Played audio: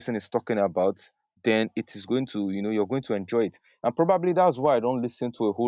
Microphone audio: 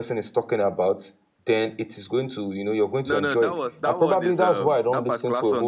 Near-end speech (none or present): present